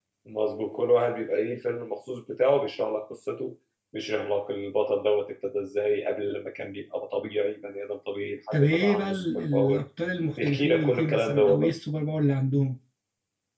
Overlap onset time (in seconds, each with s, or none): 8.5 s